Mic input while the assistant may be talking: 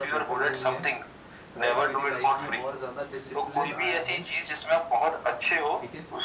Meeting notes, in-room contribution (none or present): present